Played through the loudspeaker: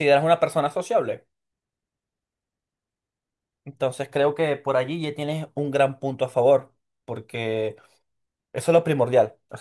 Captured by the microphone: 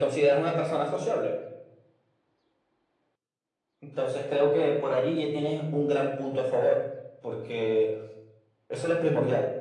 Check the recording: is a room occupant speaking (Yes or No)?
No